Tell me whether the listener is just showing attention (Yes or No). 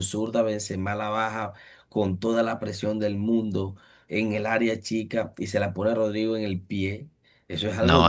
Yes